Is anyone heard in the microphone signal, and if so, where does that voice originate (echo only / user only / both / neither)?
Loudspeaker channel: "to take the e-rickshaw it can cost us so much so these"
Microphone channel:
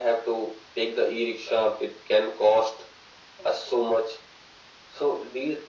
echo only